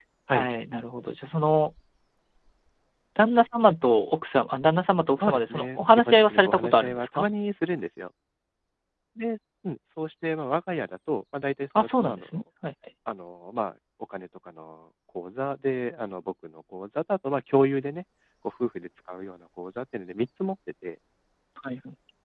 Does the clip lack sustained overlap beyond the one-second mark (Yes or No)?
No